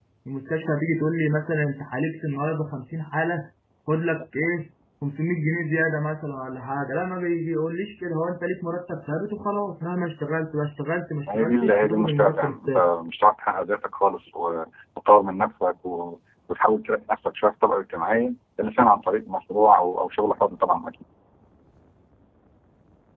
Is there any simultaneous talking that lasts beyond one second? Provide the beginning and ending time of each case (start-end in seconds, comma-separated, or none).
11.3-12.9